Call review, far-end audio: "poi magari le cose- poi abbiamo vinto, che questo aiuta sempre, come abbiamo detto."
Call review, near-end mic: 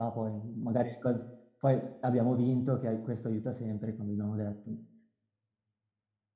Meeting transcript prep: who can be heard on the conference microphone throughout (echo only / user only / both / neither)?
echo only